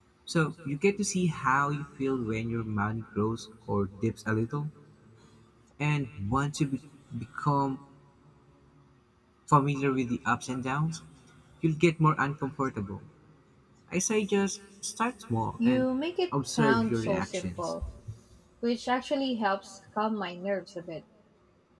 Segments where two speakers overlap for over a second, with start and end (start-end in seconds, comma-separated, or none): 16.5-17.7